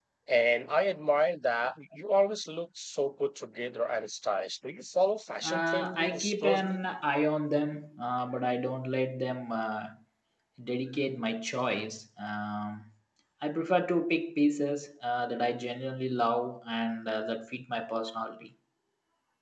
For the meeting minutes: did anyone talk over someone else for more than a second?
Yes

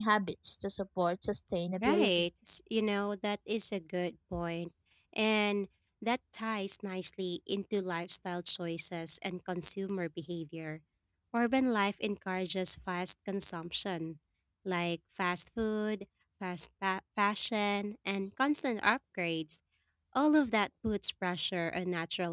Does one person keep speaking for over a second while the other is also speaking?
No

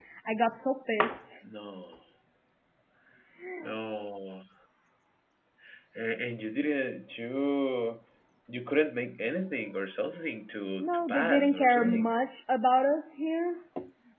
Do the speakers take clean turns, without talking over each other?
No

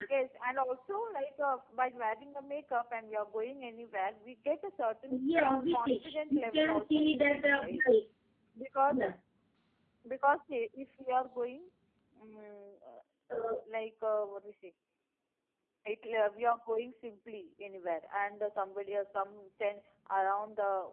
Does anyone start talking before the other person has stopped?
Yes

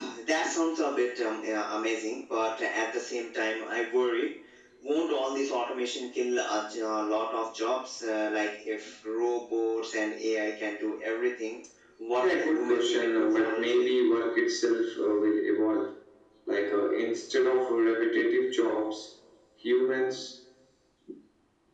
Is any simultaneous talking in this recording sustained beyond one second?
Yes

